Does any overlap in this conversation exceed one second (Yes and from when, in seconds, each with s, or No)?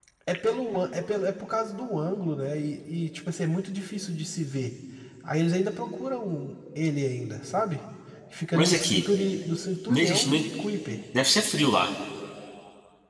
No